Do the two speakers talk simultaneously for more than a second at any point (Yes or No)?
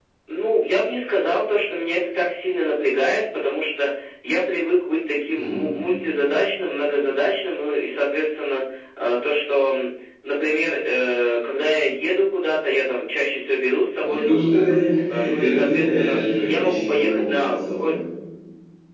Yes